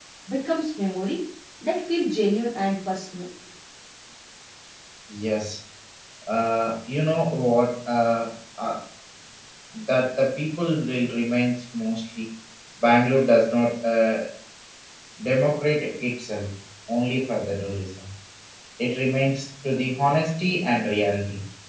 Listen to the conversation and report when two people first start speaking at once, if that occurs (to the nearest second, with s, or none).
none